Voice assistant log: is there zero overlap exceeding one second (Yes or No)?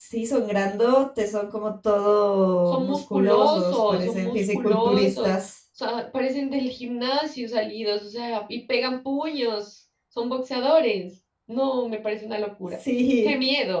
No